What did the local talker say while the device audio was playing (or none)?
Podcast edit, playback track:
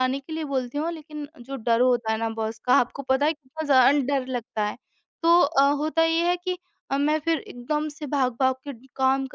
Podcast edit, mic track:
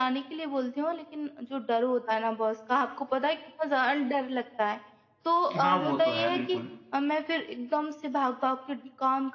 हाँ, वो तो है बिल्कुल,